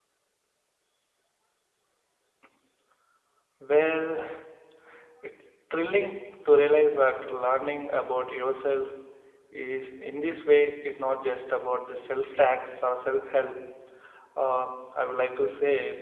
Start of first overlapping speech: none

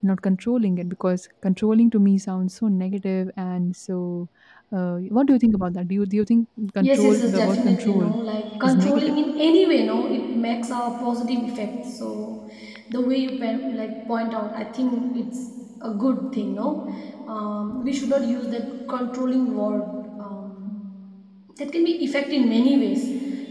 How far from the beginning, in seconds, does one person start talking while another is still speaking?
6.8 s

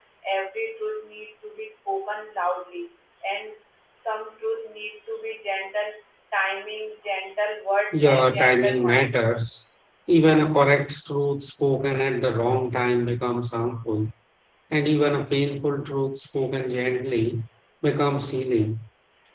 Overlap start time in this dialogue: 7.9 s

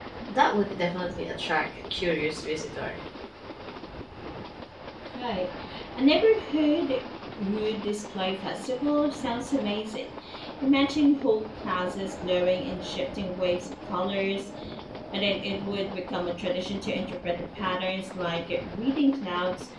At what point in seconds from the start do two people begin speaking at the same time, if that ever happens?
none

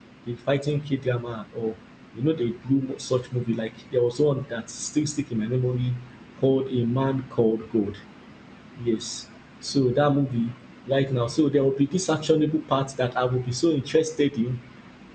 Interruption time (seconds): none

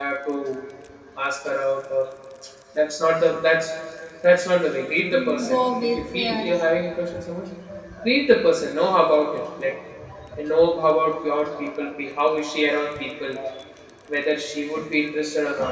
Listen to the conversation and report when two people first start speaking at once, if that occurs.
5.1 s

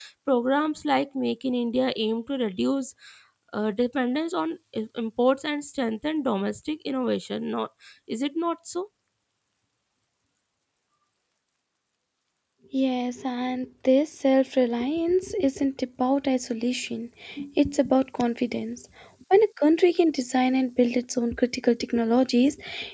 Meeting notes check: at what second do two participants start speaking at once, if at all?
none

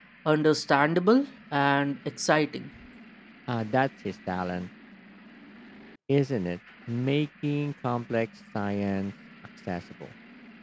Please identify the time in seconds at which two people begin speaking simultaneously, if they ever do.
none

